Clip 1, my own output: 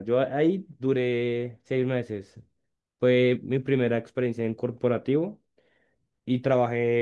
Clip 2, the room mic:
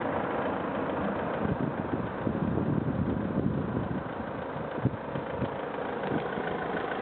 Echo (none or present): none